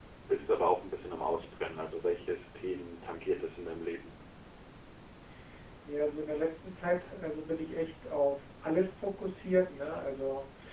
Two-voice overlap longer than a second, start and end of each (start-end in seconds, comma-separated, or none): none